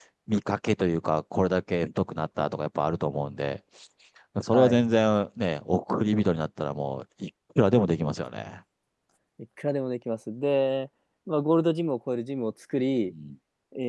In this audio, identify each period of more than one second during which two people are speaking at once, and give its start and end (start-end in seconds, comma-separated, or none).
none